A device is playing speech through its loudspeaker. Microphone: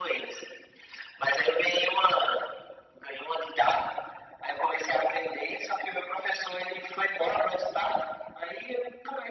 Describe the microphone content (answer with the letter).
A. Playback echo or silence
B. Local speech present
A